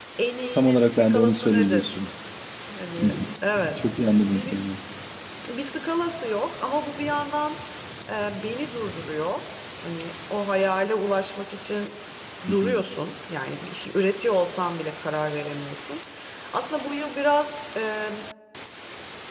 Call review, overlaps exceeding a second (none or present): present